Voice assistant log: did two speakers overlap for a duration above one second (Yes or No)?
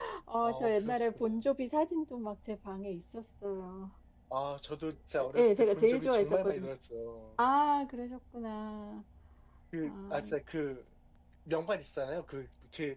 Yes